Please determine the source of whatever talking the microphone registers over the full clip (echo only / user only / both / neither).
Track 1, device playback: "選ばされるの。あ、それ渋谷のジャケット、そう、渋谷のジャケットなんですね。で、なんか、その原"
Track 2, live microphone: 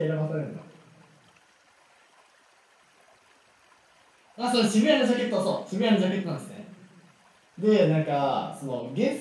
echo only